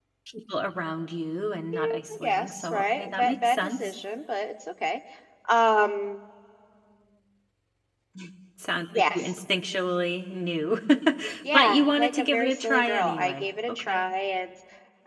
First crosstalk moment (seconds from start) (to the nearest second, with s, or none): 2 s